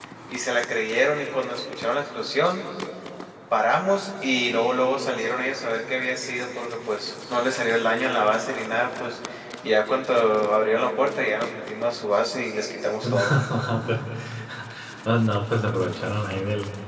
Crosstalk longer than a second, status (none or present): none